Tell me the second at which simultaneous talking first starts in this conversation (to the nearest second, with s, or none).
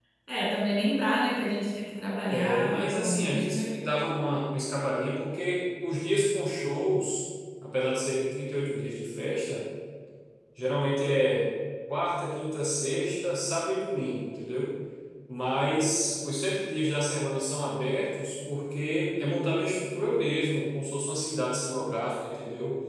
2 s